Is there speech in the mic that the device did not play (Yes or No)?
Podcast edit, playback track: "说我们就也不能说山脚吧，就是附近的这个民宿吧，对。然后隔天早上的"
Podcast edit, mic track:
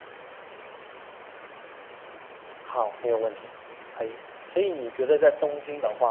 Yes